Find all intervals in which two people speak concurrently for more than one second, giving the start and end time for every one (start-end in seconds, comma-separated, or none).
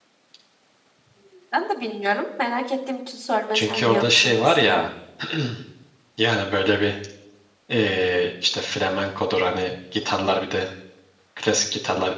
3.5-4.8